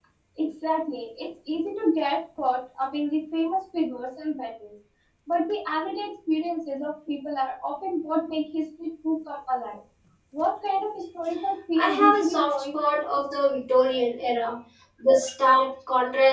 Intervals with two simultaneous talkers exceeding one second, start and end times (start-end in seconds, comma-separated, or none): 11.8-13.0